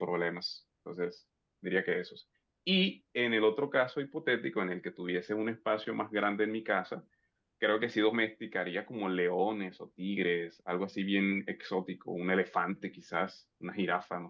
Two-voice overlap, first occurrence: none

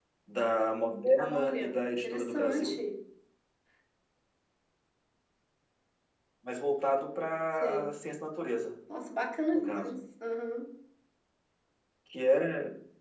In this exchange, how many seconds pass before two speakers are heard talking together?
1.2 s

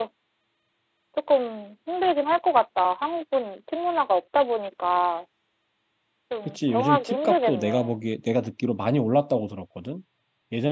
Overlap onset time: 6.4 s

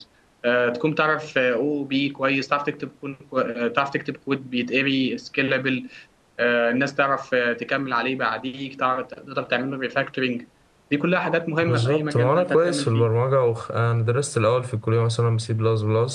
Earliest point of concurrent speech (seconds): 11.6 s

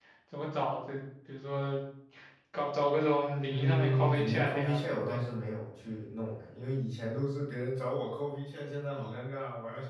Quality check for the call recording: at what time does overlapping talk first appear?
3.5 s

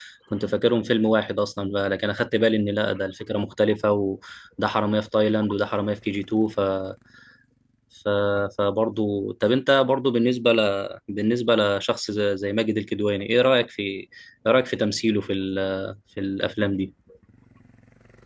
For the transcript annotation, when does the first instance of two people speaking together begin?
none

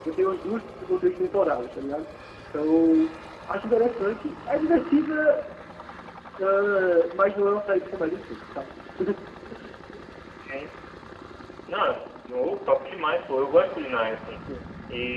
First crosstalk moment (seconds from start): none

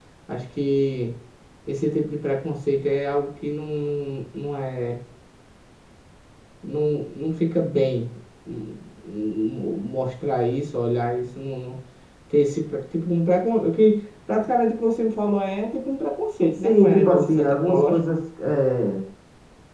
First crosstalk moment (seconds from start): 16.6 s

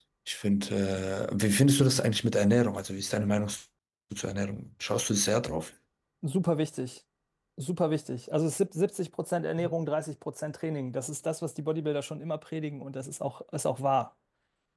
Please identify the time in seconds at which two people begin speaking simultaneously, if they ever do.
none

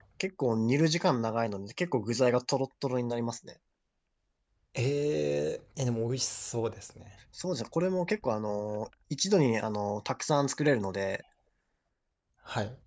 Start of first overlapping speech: none

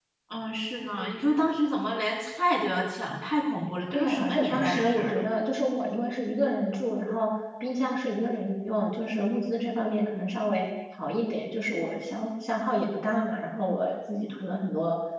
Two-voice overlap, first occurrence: 3.9 s

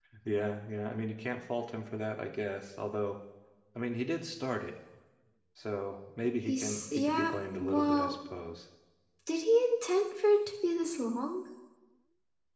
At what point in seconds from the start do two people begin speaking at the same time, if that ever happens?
6.4 s

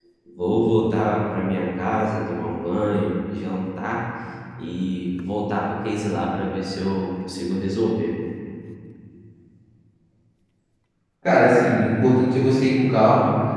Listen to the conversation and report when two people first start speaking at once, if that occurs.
none

